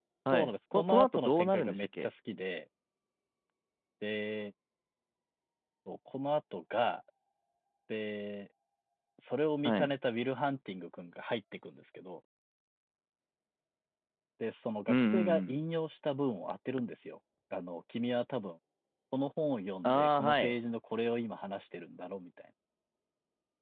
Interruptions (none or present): present